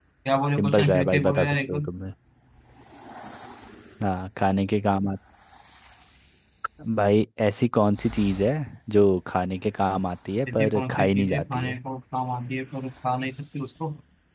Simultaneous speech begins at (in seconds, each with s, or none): 0.6 s